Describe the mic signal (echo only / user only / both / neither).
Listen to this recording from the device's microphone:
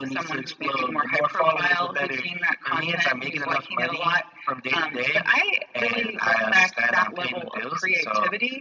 echo only